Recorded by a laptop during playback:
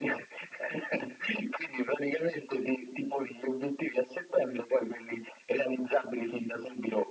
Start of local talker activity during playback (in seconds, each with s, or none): none